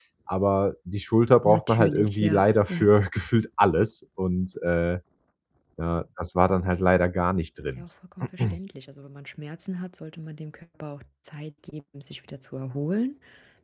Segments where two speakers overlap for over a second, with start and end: 1.4-2.9

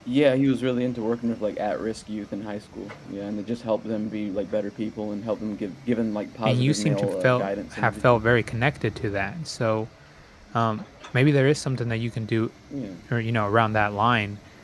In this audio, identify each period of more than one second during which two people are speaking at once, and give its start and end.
6.5-8.2

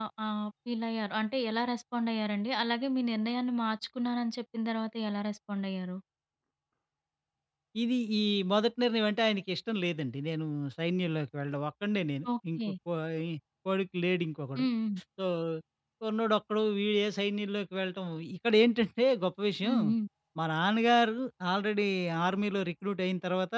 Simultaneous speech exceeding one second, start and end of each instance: none

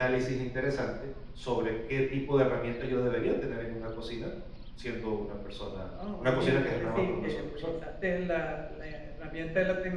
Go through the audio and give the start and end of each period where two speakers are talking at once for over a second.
6.2-7.7

